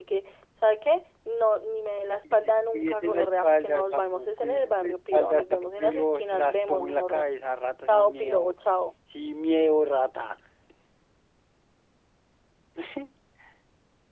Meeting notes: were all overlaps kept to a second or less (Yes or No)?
No